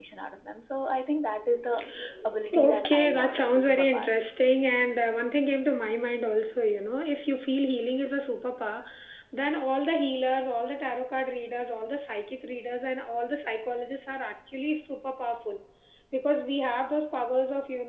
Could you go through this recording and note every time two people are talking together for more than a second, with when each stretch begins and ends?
2.5-4.1

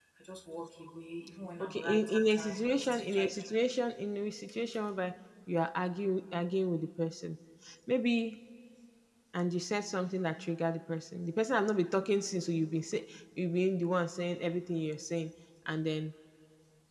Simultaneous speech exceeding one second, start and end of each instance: 1.6-3.3

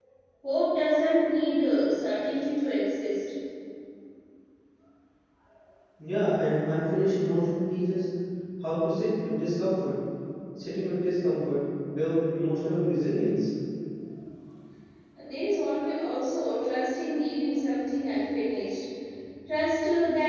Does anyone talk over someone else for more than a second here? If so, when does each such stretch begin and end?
none

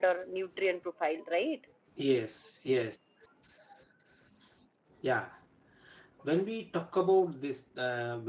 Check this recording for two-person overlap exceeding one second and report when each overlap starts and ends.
none

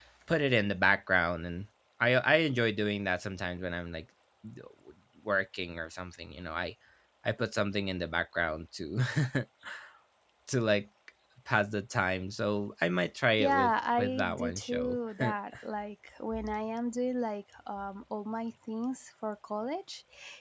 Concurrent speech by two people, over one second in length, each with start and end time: 13.4-15.0

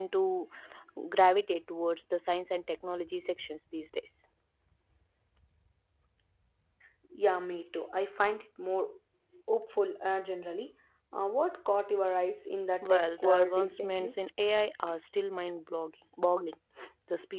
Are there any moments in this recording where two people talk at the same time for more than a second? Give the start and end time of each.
12.8-14.1

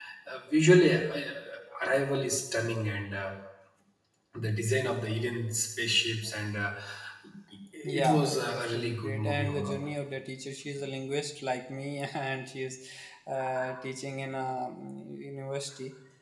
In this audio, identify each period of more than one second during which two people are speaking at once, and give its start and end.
8.0-9.9

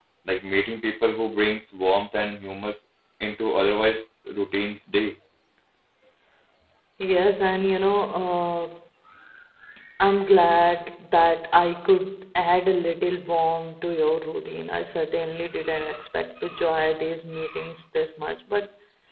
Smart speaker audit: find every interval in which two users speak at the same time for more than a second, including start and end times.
none

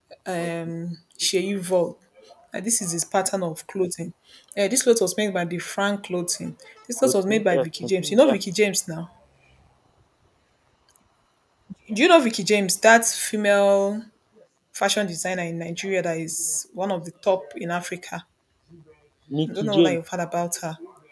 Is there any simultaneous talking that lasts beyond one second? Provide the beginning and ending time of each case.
7.0-8.3

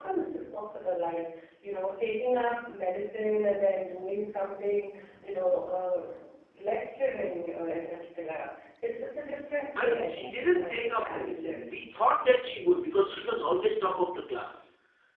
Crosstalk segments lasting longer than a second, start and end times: 9.8-11.7

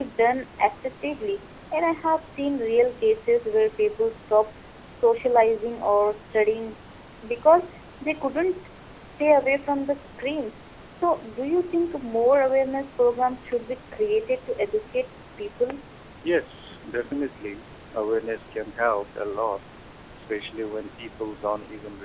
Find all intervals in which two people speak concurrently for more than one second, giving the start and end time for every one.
none

